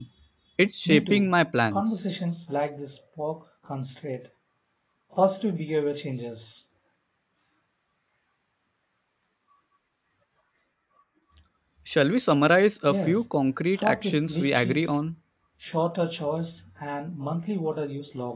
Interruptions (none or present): present